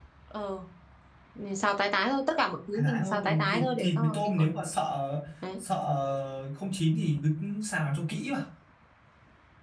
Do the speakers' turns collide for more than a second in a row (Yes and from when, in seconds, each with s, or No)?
Yes, from 2.7 s